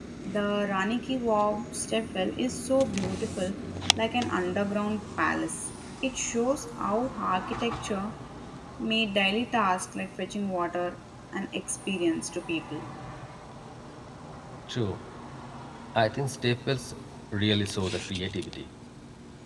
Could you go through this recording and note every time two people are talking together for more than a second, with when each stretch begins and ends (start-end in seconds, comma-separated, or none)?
none